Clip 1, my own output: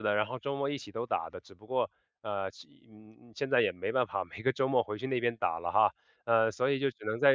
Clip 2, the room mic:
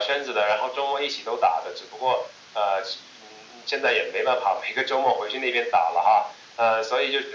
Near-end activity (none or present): none